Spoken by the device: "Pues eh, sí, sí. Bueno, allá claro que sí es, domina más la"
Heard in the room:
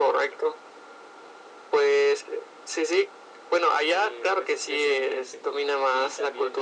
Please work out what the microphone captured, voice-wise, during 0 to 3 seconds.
echo only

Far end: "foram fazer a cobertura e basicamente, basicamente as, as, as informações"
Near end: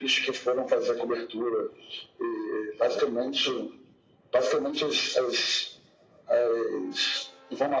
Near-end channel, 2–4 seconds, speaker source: echo only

